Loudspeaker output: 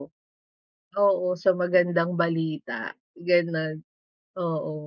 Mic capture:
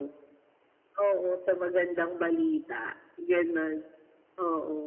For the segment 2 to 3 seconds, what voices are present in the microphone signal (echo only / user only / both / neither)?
echo only